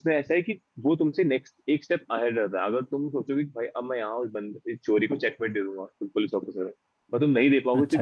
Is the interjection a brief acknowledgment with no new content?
Yes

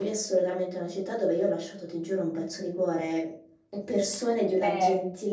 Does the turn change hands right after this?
No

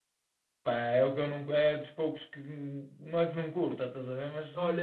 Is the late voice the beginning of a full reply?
Yes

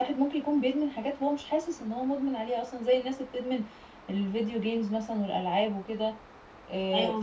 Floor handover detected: No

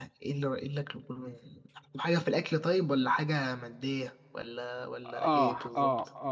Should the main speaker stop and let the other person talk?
Yes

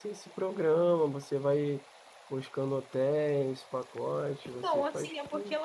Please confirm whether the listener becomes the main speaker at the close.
Yes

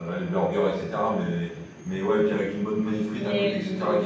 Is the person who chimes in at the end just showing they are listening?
Yes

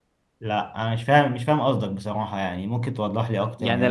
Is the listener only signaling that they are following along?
No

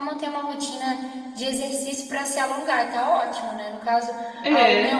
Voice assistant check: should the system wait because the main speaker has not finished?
Yes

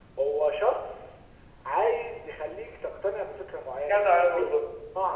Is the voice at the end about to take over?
Yes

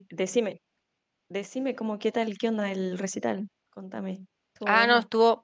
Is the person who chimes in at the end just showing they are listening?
No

